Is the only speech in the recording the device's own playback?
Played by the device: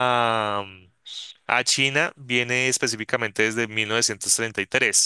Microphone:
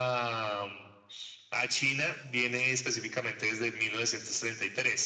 Yes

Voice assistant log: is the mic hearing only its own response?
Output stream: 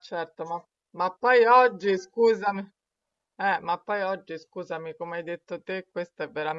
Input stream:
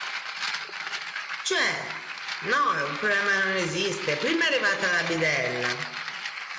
No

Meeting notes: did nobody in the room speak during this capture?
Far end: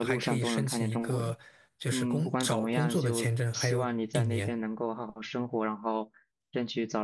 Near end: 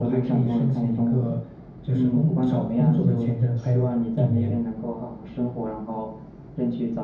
Yes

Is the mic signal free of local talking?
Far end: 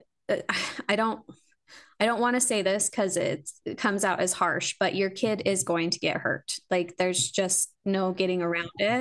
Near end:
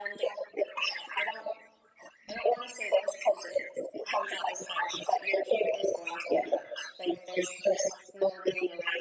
Yes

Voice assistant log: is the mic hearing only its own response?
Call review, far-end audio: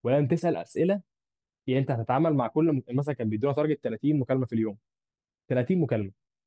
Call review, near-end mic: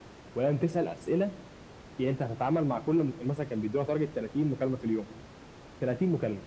Yes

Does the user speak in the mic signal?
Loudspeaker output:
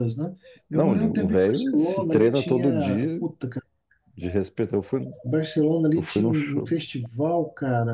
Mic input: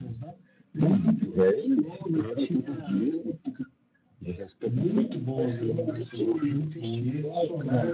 Yes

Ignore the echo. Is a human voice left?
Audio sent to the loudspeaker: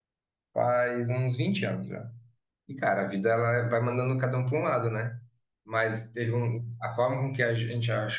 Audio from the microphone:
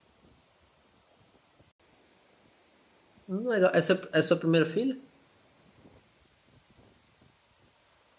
Yes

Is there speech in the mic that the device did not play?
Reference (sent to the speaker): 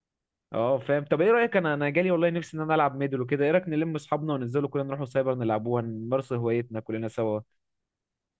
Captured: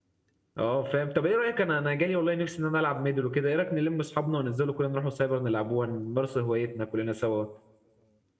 No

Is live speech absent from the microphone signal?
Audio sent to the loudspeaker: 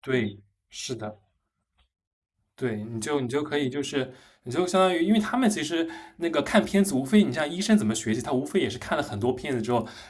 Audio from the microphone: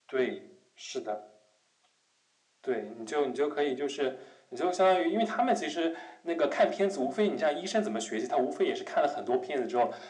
Yes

